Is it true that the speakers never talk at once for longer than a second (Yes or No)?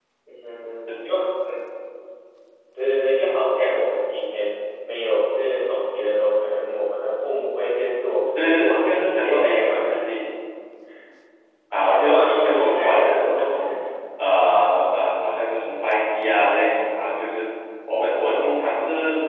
No